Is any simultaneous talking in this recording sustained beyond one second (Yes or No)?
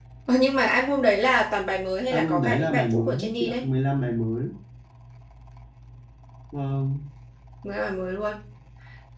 Yes